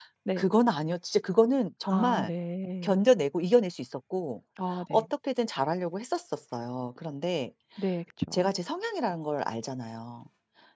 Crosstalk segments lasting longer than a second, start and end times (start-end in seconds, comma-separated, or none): none